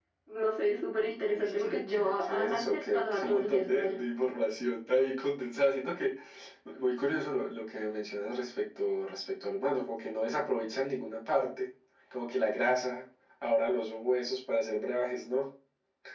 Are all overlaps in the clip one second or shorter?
No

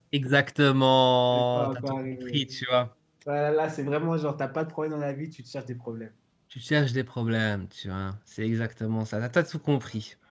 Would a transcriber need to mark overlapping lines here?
Yes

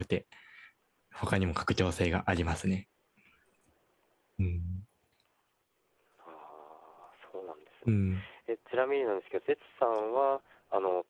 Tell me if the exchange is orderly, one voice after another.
Yes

